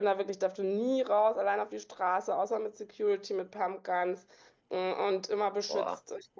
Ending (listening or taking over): listening